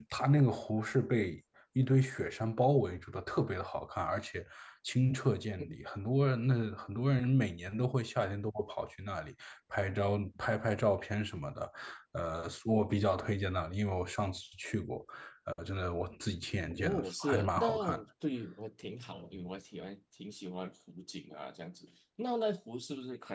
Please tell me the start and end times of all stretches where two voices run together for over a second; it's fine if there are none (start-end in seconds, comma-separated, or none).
16.8-18.0